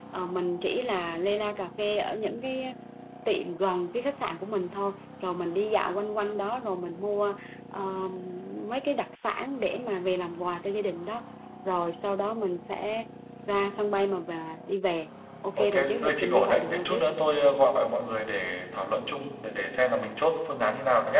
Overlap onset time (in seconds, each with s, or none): 15.6 s